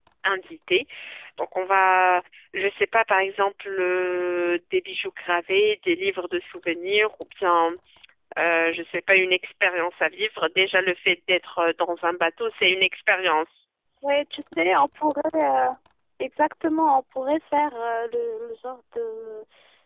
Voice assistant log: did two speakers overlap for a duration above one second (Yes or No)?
No